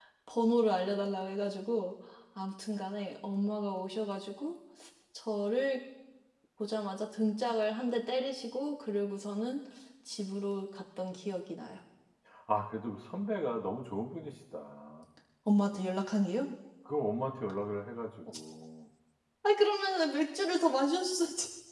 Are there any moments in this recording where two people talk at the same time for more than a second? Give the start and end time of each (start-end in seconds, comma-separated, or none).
none